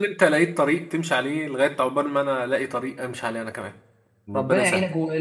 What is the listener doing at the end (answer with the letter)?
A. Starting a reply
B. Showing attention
A